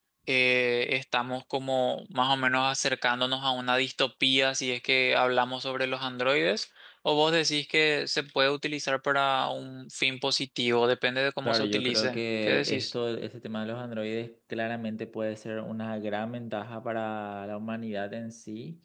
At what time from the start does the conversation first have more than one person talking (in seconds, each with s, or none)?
11.4 s